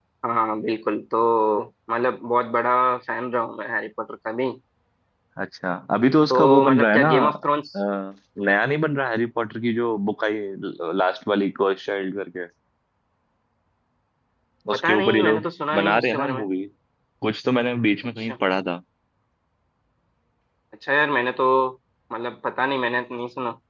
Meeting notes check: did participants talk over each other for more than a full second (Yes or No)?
Yes